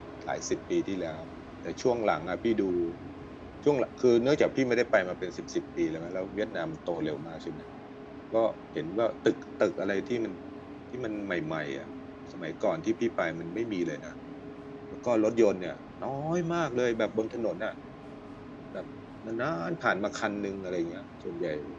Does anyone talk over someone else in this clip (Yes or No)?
No